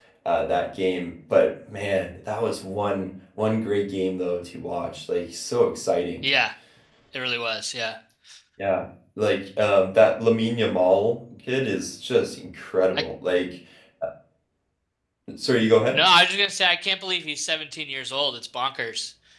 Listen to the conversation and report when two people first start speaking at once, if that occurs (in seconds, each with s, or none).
none